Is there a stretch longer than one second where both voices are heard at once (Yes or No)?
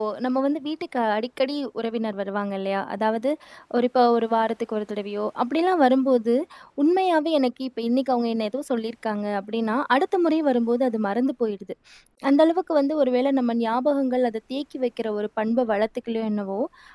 No